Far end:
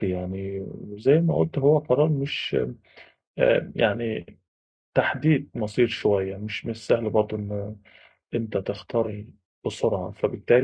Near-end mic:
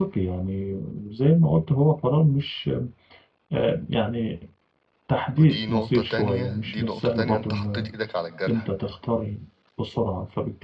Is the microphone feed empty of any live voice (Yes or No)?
No